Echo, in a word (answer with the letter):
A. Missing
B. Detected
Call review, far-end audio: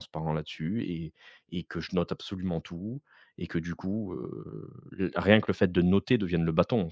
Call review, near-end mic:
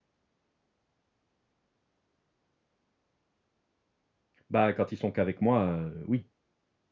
A